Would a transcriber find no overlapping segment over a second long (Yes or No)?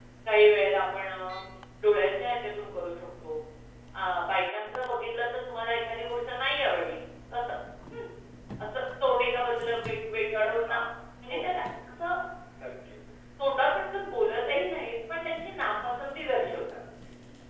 Yes